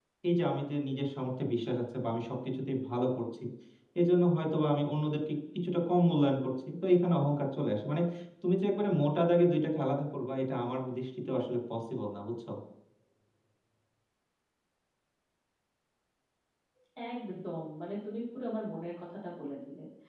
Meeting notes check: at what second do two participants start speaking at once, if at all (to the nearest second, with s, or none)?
none